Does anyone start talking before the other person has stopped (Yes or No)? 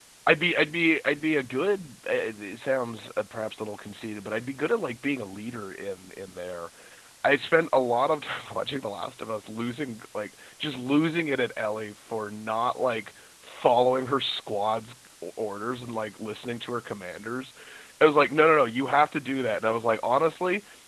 No